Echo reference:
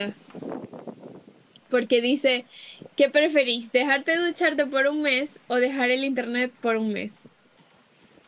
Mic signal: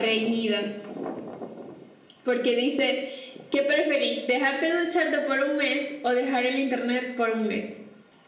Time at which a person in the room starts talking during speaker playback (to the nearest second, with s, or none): none